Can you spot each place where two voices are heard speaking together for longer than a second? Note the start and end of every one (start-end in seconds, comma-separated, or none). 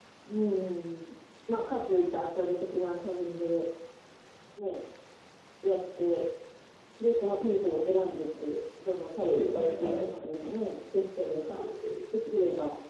9.2-10.6